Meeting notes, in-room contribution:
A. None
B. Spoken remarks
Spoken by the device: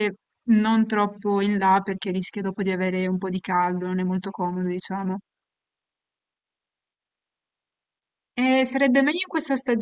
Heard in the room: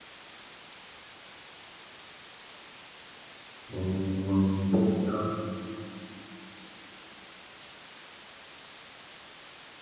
B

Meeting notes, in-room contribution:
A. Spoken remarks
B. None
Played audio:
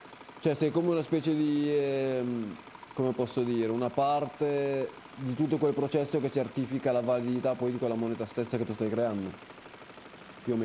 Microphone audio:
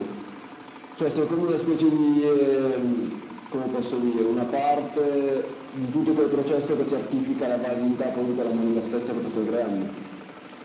B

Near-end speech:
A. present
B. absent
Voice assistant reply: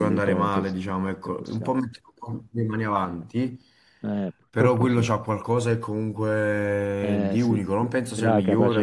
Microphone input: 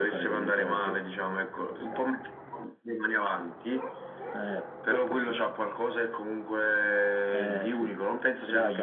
B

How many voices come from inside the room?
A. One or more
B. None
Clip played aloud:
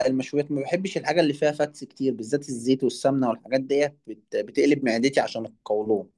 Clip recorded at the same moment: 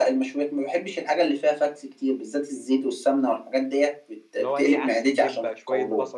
A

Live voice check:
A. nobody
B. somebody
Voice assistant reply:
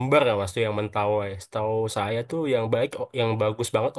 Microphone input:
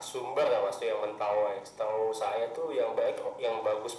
A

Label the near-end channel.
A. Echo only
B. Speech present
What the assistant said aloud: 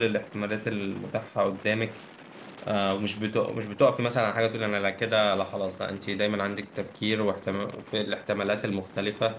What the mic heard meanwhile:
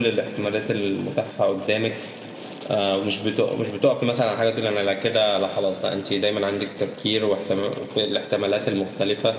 A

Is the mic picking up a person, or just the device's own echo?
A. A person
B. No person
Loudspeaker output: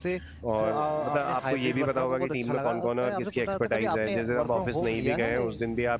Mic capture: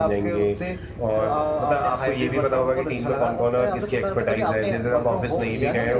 B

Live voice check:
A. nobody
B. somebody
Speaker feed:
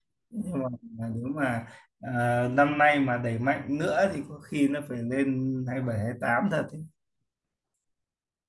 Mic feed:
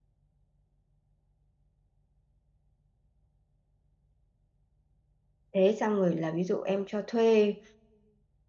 B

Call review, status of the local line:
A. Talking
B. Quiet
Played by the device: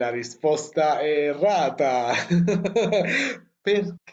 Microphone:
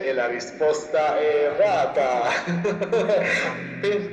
A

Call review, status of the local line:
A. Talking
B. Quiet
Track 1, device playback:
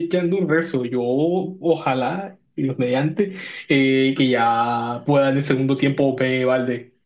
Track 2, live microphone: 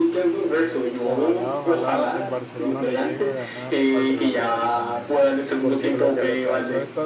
A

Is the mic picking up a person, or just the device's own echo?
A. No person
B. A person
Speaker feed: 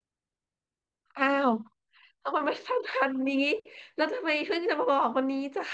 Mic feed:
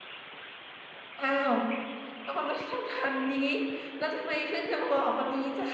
A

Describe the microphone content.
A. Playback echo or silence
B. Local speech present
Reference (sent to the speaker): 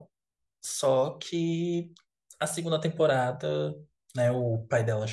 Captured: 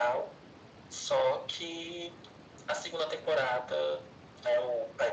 A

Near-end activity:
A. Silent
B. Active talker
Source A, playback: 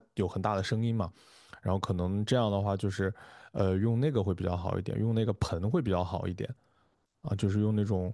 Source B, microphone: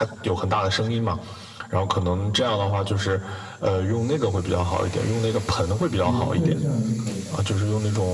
B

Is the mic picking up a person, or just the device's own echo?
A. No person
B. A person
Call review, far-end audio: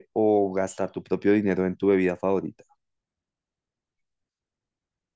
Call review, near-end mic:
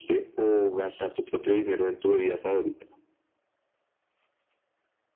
A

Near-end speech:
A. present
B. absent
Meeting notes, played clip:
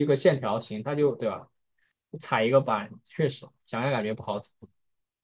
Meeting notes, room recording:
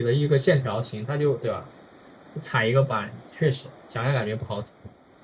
B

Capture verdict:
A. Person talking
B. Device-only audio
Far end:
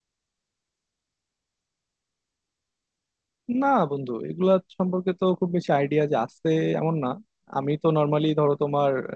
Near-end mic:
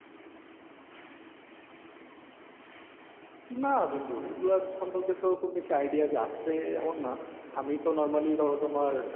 B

